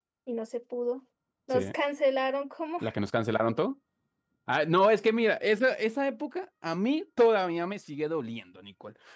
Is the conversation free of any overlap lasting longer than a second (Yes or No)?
Yes